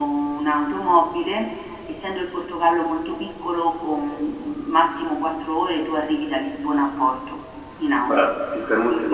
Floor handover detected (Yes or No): Yes